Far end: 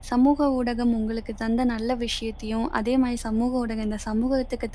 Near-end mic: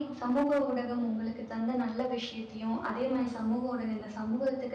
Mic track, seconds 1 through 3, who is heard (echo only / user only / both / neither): echo only